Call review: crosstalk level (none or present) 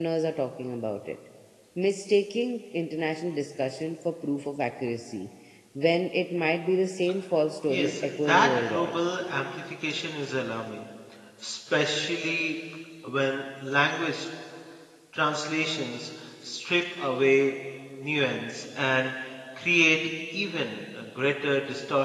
present